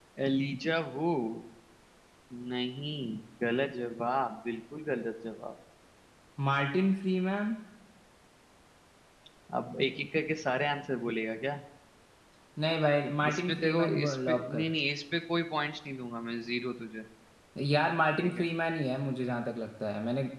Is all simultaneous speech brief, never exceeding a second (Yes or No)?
No